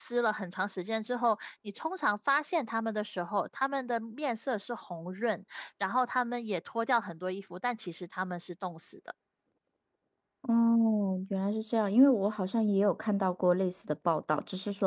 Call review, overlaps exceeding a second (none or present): none